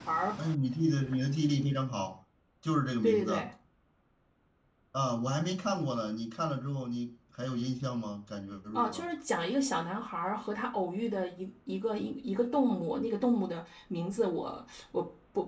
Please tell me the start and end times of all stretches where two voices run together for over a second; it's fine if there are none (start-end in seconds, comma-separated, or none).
none